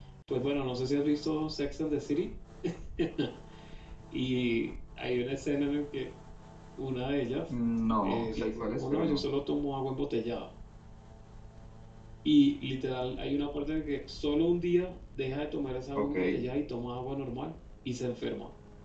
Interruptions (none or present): present